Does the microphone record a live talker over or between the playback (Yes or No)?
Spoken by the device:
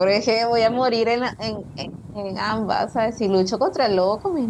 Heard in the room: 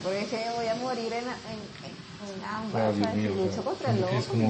Yes